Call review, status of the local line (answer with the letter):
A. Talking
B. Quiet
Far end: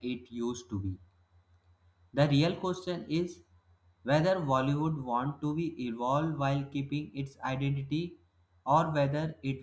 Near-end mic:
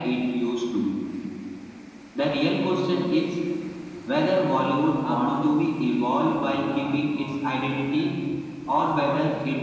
A